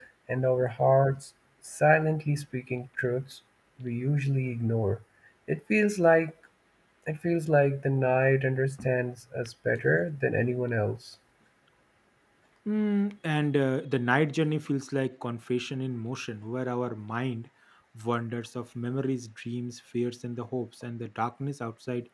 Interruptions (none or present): none